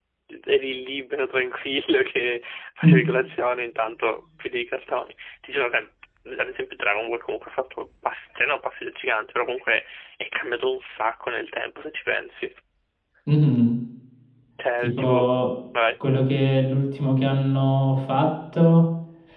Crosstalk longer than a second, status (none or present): none